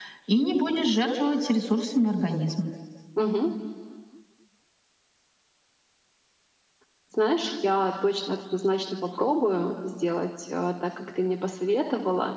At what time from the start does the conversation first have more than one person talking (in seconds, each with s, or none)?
none